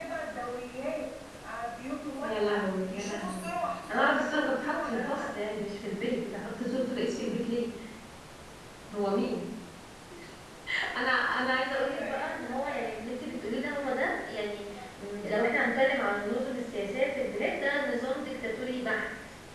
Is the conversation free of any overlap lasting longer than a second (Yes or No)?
No